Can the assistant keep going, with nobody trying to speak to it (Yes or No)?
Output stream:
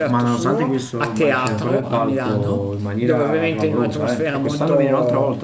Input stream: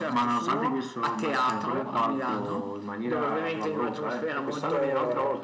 Yes